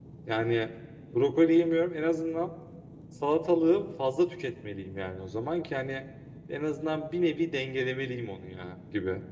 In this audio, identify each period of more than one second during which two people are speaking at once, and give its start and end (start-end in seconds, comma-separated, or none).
none